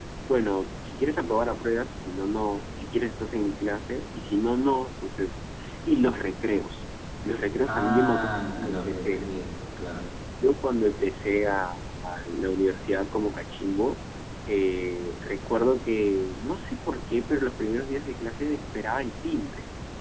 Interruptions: present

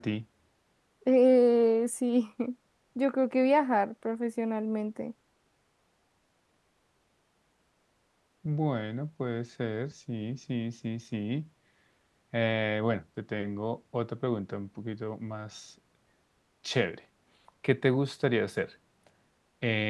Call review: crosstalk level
none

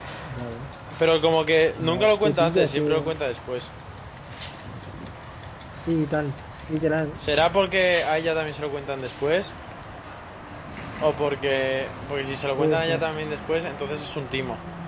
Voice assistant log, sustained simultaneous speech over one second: present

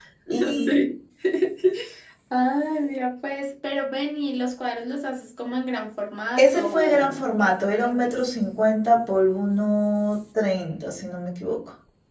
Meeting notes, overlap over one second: present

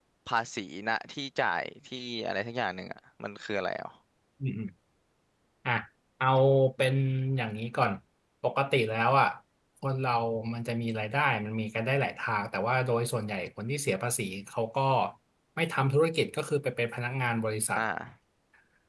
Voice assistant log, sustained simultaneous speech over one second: none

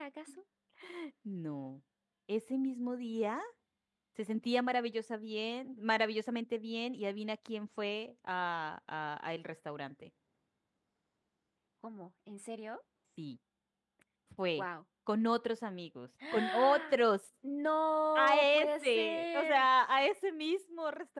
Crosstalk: present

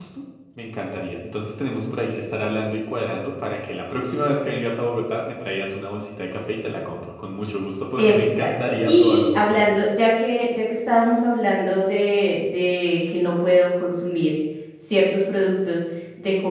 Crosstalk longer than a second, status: present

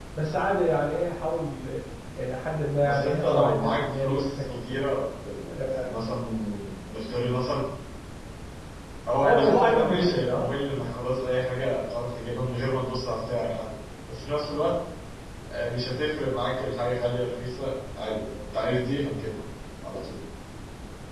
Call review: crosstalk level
present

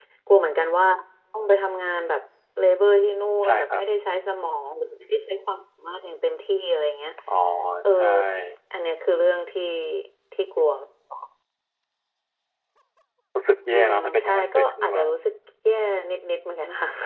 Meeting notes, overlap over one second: present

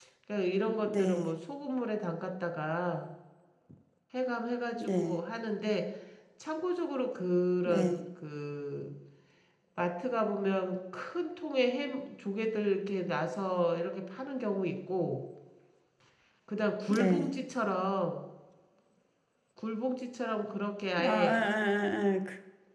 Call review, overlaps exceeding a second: none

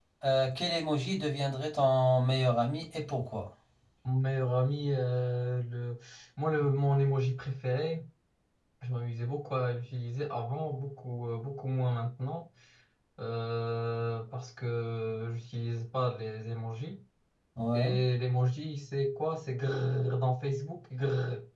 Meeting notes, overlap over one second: none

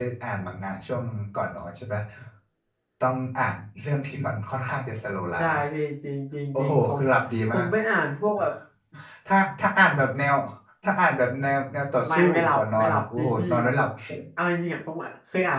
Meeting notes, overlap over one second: present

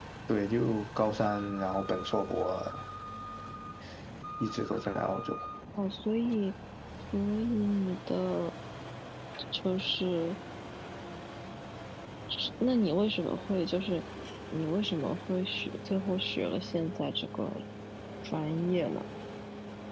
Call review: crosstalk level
none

